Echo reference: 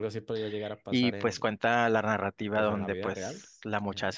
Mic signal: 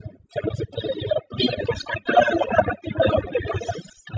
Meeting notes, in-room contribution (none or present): none